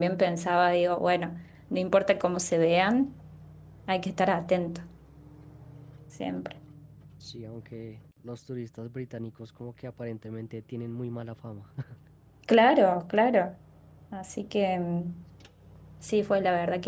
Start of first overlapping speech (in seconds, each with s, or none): none